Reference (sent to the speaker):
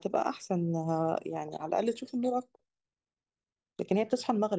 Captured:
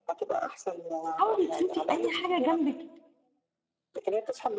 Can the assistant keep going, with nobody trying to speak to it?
No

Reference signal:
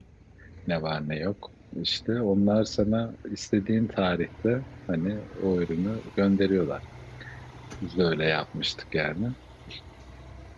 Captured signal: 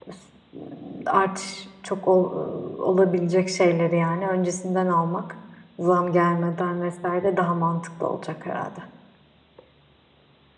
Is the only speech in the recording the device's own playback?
No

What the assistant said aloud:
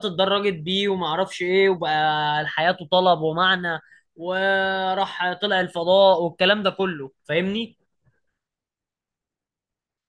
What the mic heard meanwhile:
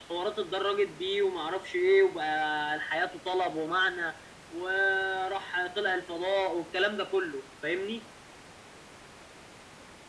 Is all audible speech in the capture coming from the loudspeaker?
Yes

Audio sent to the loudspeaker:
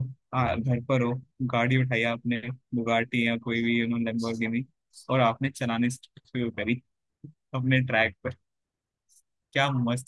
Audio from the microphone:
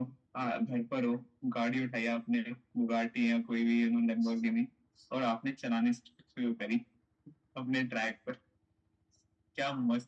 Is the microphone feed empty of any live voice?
Yes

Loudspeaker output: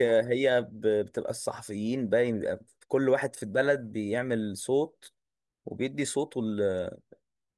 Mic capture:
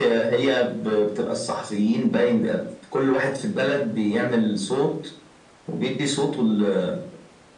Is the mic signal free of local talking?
Yes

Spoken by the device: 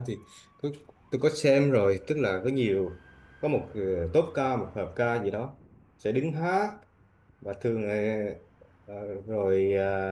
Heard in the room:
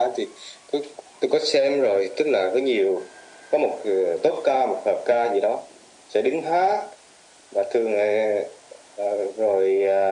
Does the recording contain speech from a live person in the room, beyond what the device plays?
No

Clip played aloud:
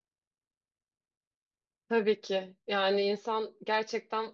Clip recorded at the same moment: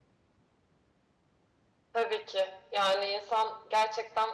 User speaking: No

